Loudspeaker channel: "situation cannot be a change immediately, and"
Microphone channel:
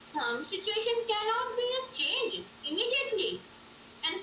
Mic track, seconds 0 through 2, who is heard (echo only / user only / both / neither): echo only